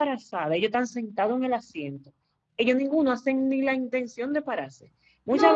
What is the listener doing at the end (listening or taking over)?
listening